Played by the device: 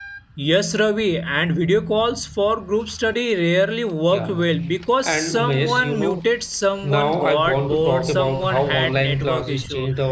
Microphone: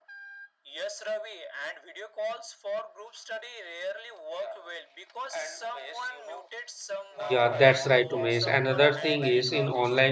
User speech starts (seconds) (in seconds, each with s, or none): 7.2 s